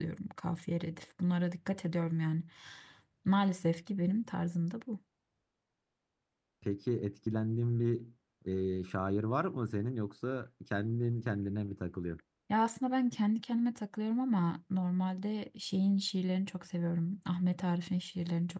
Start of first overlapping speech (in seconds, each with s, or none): none